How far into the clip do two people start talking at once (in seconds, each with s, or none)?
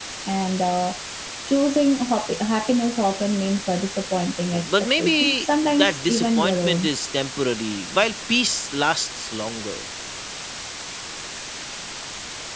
4.5 s